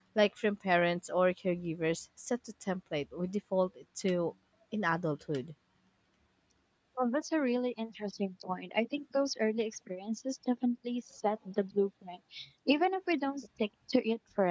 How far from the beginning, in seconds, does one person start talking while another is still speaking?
none

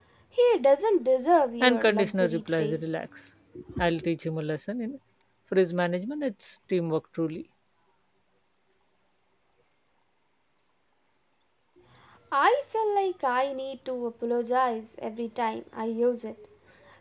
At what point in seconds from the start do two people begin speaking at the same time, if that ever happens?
1.6 s

